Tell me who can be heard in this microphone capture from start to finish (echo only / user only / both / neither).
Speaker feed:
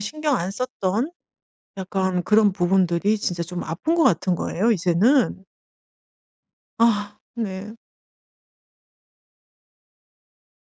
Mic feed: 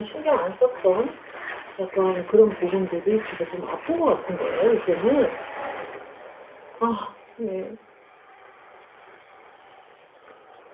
echo only